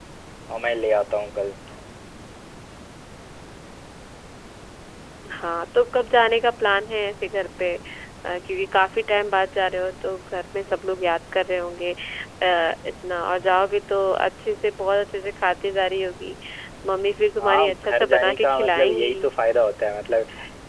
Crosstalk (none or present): present